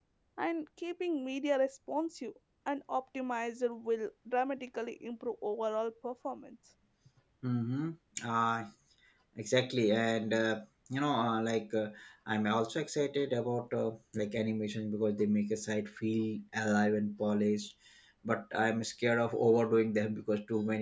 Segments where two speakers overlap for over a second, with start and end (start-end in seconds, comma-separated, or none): none